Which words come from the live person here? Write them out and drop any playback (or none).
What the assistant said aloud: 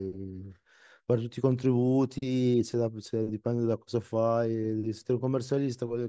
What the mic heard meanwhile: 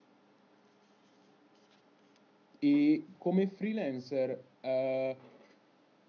e come freelancer, eh,